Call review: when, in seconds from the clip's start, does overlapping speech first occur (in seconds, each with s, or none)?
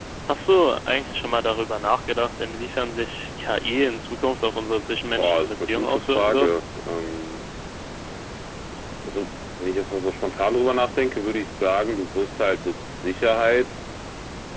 5.2 s